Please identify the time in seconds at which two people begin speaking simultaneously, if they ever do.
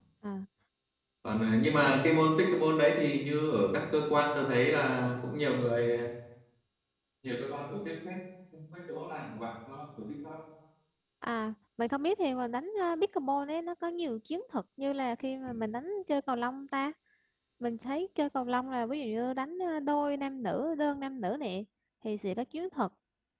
none

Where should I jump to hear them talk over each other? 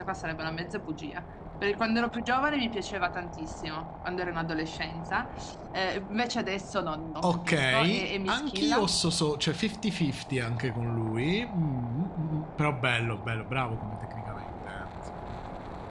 7.2 s

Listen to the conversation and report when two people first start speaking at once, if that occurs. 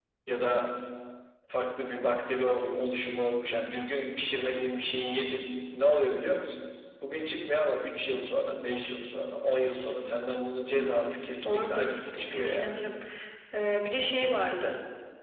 11.4 s

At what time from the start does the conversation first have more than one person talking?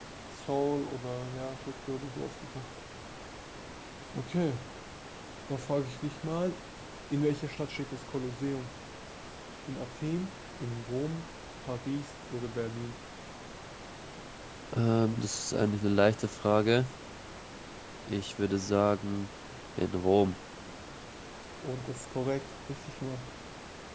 none

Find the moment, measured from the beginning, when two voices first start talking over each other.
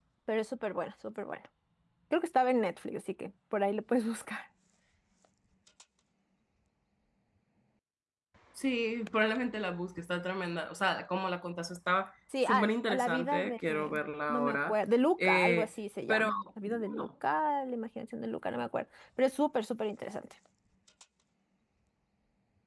12.3 s

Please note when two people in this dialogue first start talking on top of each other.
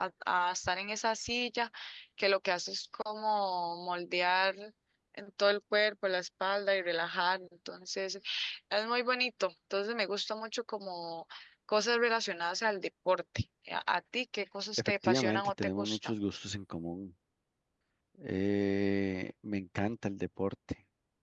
14.8 s

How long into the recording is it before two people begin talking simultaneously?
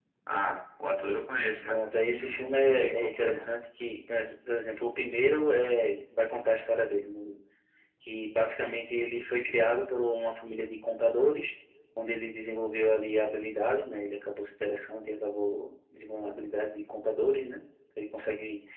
1.6 s

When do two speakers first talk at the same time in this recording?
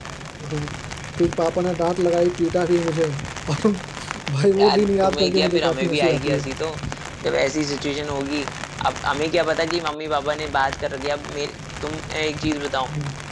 4.6 s

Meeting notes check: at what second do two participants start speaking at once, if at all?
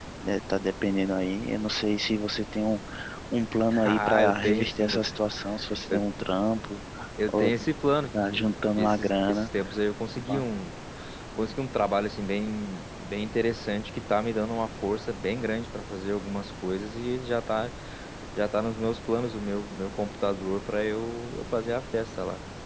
3.8 s

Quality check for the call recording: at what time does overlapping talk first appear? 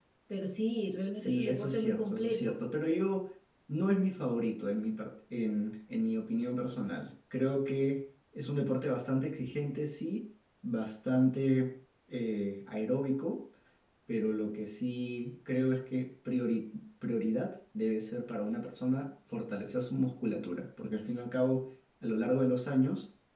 1.1 s

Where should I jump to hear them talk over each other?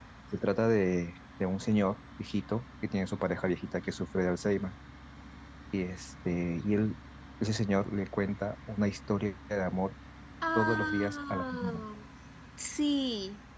10.6 s

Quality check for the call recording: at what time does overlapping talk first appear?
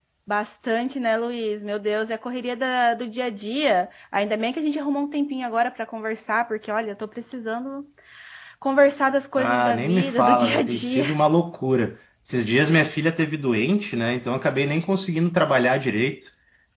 9.4 s

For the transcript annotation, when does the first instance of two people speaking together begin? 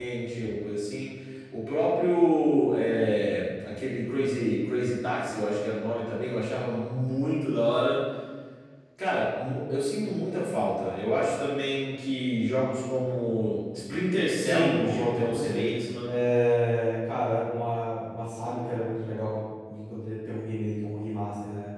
14.4 s

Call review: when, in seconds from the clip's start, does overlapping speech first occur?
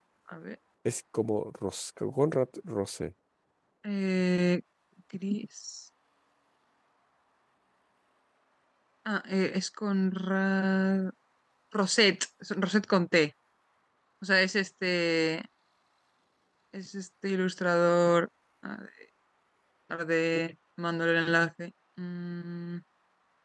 none

